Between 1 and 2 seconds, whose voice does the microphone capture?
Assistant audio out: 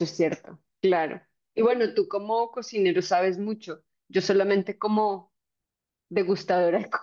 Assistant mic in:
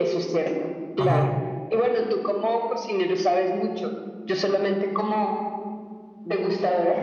both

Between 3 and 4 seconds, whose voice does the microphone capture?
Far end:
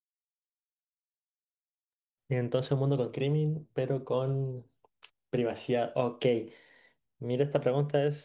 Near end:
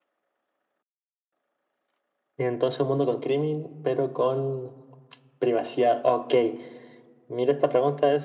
echo only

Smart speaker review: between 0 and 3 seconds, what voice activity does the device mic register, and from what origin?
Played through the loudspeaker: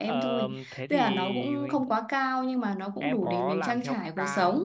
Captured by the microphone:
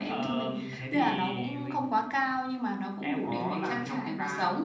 echo only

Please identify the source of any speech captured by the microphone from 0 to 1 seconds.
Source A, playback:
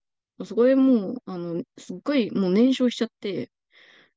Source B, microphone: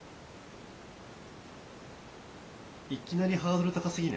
neither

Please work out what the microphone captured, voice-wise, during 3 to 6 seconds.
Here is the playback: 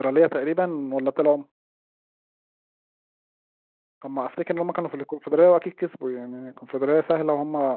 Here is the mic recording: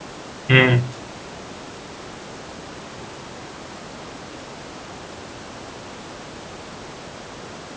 neither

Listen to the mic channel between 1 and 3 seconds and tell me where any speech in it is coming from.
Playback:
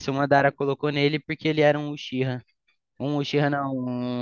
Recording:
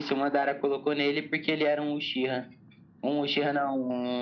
echo only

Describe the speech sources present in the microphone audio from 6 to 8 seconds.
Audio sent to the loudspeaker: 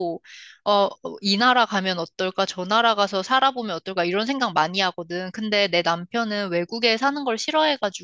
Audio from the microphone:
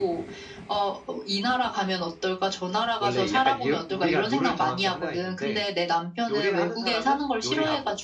both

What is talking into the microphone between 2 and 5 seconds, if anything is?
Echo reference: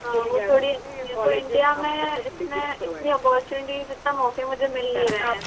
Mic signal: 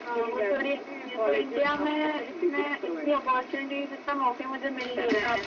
echo only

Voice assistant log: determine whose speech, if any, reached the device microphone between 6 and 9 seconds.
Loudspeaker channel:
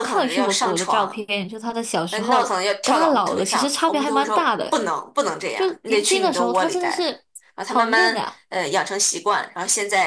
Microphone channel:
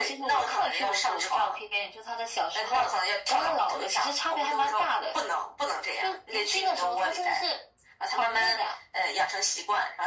echo only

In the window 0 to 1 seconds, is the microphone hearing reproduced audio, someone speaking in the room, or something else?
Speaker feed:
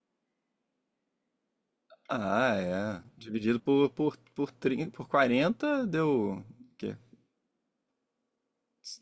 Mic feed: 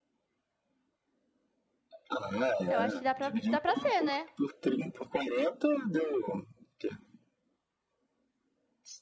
neither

